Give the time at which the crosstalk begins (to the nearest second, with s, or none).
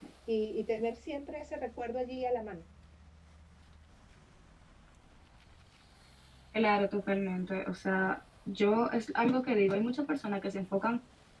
none